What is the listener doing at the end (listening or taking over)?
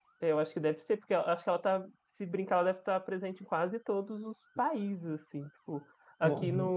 listening